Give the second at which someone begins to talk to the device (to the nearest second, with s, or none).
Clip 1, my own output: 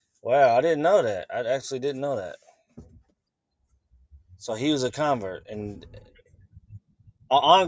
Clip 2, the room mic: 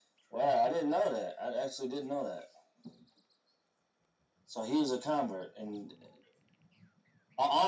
none